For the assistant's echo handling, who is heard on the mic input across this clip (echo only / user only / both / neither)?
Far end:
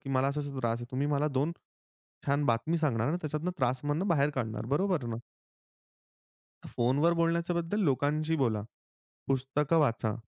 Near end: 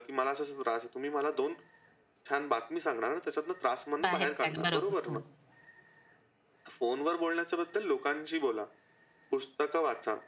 both